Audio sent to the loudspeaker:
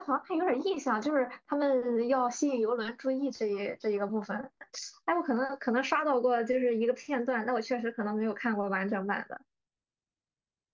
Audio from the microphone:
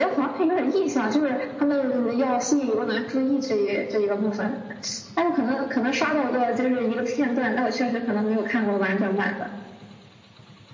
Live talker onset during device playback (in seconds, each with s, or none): none